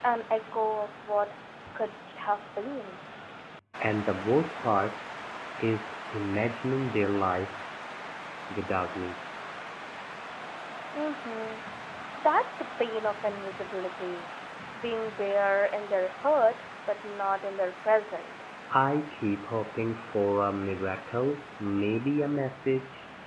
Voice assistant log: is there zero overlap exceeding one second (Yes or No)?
Yes